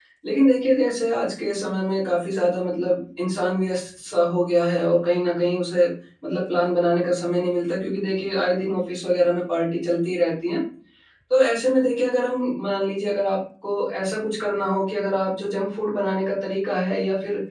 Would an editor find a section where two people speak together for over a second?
No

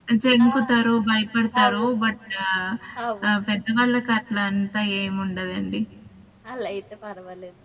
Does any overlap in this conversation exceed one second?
No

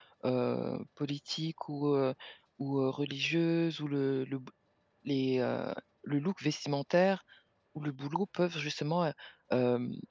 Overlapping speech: No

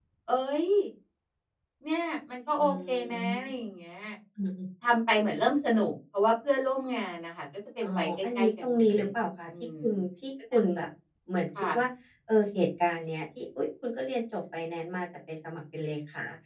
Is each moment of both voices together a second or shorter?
No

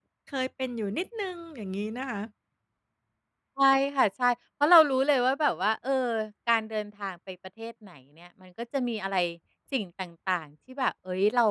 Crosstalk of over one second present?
No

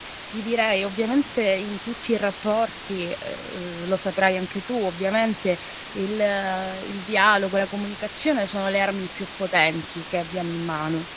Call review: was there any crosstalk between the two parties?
No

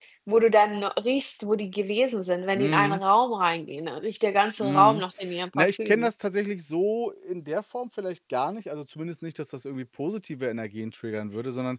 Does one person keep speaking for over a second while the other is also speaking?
No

